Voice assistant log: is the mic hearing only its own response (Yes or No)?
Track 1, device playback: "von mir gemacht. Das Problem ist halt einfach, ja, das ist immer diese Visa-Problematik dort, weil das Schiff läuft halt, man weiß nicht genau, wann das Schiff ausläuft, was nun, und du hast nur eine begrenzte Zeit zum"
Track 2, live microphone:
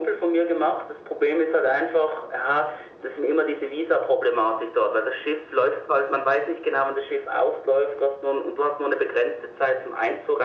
Yes